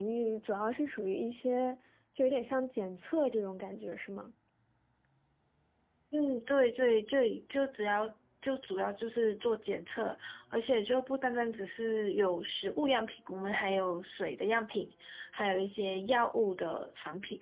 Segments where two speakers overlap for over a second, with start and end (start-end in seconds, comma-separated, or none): none